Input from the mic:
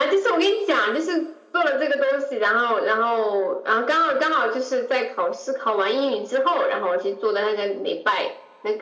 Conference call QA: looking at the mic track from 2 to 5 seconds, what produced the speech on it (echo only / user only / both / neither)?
echo only